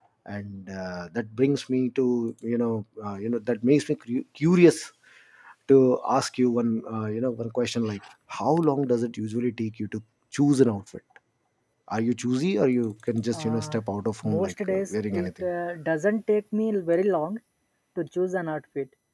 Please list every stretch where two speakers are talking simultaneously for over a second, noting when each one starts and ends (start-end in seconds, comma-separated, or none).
14.2-15.5